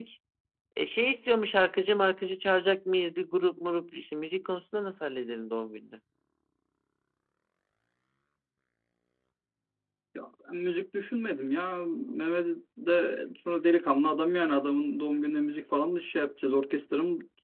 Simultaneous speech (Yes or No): No